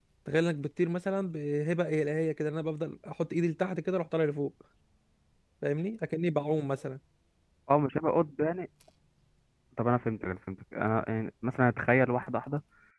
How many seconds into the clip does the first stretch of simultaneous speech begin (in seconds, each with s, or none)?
none